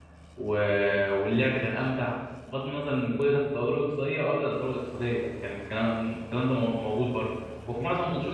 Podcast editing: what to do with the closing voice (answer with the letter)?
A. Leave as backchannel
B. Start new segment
A